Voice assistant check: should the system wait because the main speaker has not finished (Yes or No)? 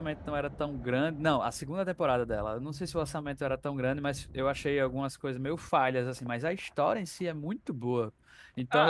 No